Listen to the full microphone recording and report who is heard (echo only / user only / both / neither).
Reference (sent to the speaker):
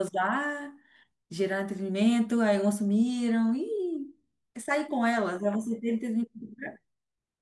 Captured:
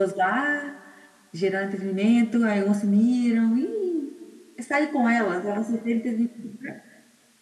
echo only